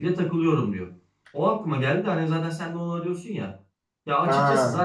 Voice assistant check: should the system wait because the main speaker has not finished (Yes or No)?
Yes